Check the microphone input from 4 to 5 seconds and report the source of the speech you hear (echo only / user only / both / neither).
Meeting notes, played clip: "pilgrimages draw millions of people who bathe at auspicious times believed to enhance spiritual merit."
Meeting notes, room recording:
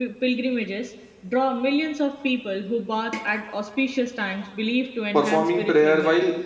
echo only